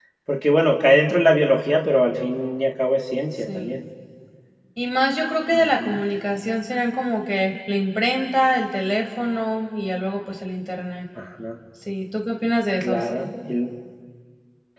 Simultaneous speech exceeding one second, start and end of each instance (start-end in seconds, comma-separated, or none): none